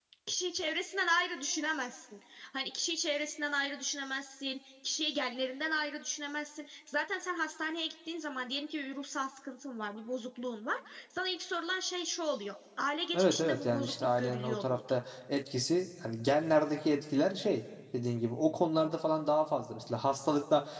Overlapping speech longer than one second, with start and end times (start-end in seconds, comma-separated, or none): 13.1-15.0